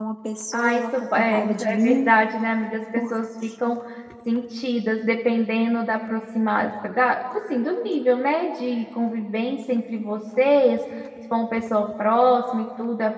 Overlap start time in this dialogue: 0.5 s

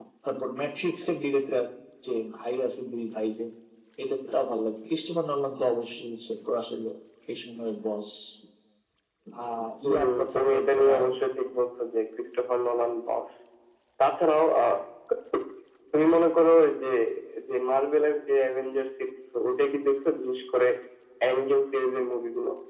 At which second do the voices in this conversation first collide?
9.8 s

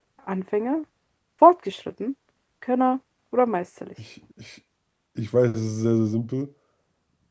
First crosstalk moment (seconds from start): none

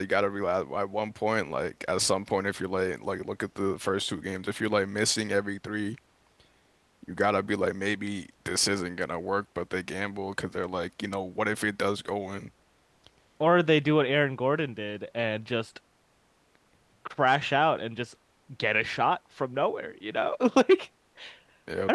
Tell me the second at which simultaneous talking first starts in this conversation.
none

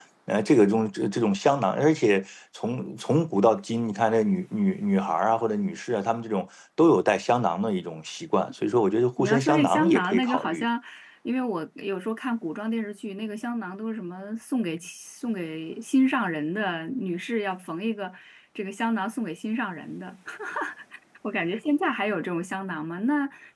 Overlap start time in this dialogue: 9.2 s

